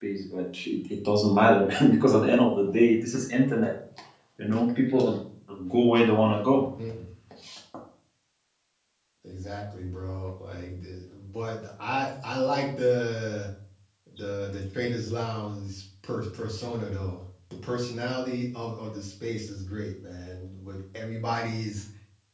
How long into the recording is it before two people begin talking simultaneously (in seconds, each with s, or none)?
none